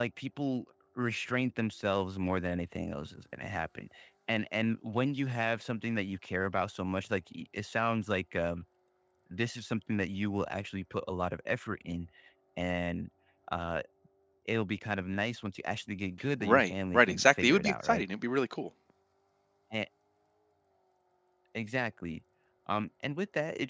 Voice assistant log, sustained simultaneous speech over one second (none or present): present